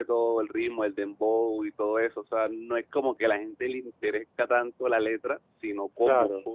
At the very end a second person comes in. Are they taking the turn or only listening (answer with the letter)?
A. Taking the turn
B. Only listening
B